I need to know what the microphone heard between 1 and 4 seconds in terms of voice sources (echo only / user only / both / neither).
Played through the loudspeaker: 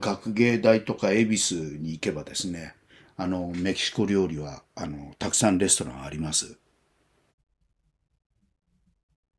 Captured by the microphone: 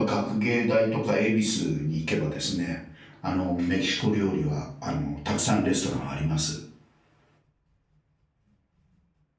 echo only